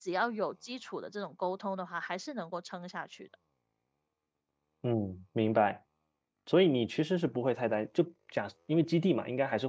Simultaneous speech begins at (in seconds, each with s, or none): none